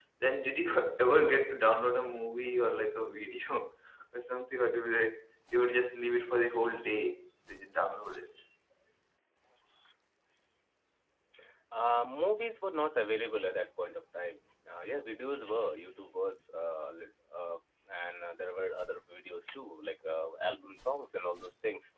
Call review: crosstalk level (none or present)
none